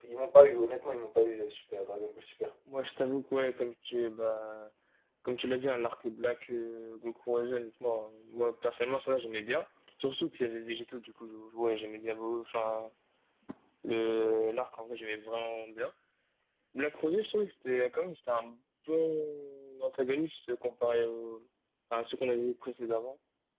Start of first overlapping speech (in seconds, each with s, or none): none